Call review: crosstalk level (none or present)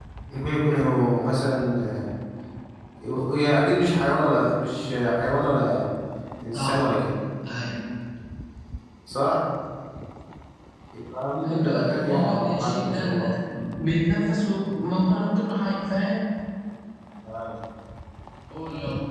present